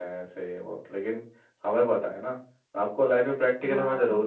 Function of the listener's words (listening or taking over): listening